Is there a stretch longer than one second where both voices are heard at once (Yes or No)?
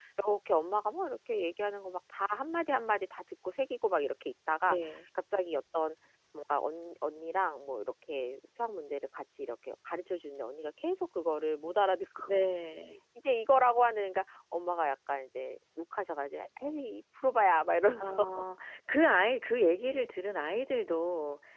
No